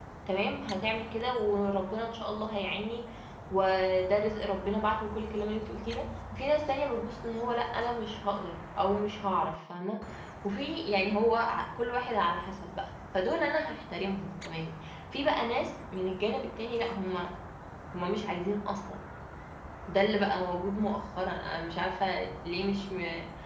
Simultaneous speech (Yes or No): No